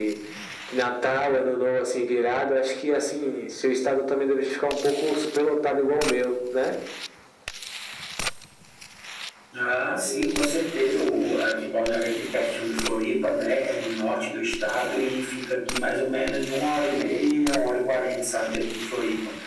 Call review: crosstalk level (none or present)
none